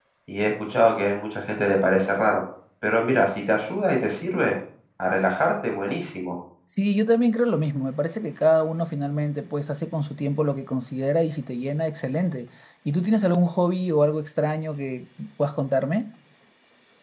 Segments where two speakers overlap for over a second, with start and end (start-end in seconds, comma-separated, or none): none